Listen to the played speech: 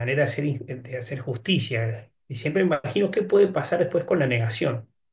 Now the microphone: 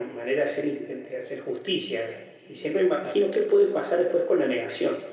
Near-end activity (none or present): none